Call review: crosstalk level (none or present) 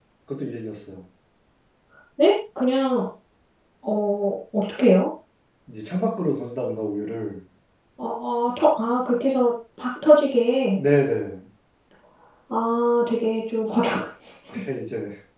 none